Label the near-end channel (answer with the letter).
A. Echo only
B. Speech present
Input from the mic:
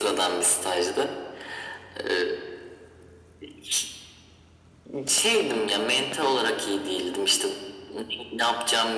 A